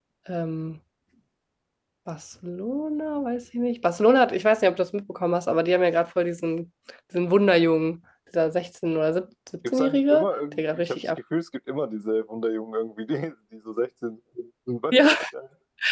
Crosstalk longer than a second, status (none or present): present